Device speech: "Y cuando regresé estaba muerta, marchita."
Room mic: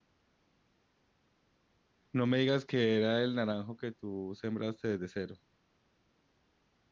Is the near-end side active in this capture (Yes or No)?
Yes